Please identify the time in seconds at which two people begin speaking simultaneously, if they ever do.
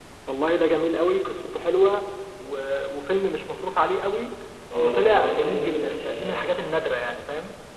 4.8 s

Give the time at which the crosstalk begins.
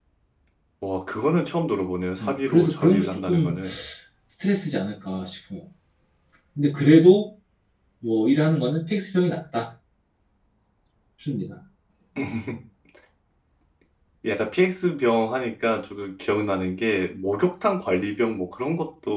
2.2 s

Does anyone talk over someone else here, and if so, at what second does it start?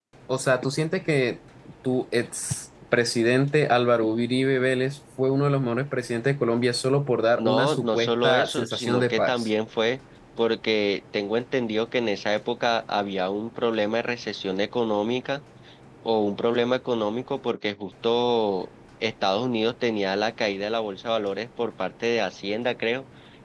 7.4 s

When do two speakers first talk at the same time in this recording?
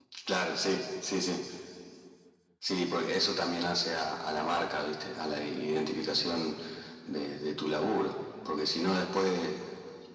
none

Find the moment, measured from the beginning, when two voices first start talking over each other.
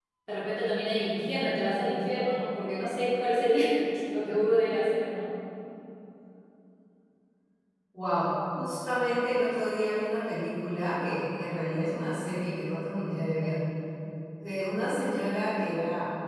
none

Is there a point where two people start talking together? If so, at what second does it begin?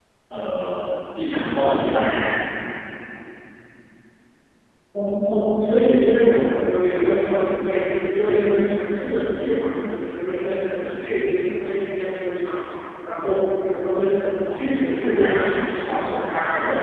14.5 s

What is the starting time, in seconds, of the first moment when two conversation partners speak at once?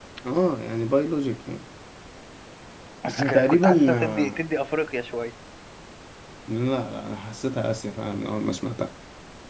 3.1 s

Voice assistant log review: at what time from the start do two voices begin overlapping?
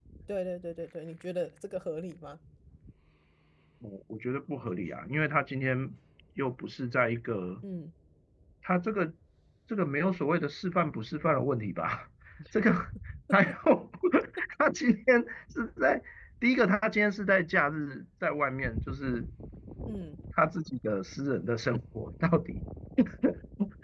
none

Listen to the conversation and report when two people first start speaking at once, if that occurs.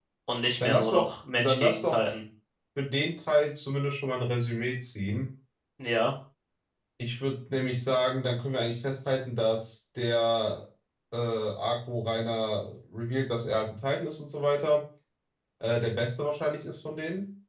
0.6 s

